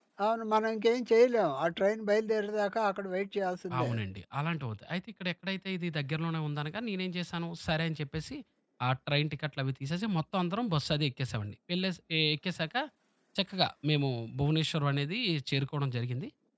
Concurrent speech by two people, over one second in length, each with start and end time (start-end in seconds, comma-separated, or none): none